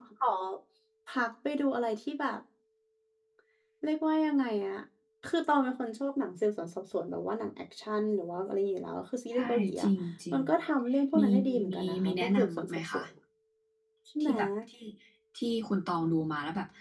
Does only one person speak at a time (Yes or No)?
No